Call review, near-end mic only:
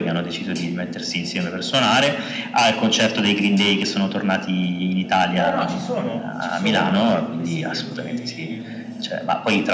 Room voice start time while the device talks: 5.3 s

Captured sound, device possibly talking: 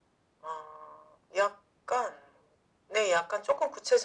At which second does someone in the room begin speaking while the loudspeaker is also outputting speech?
none

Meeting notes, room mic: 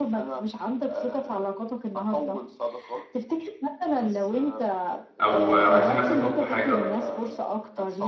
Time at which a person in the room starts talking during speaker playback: 5.2 s

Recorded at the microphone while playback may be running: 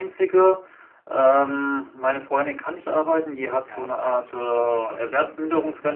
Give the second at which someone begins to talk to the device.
3.7 s

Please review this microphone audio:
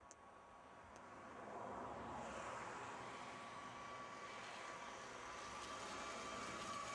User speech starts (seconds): none

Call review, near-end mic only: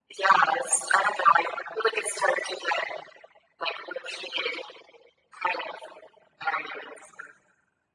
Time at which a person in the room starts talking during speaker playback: none

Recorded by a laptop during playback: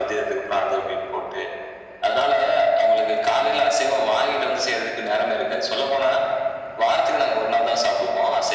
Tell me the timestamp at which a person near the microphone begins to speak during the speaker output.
none

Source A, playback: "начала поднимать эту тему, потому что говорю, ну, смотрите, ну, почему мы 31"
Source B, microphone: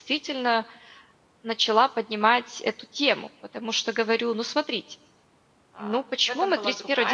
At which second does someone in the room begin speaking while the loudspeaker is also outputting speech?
5.7 s

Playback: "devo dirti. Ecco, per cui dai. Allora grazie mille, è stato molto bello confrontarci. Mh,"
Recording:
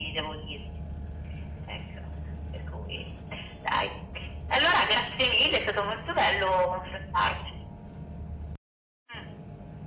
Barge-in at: none

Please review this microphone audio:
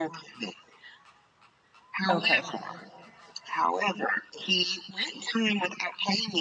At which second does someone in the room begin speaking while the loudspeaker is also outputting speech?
2.1 s

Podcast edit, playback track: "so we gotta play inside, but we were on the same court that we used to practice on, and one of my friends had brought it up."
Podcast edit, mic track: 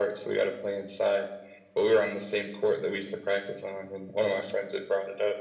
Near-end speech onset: none

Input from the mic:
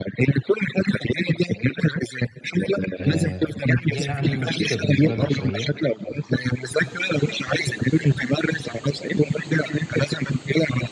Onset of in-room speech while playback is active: 3.0 s

